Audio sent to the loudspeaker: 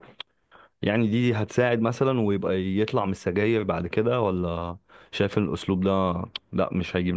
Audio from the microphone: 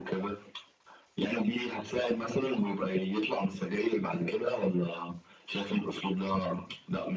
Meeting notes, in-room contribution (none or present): none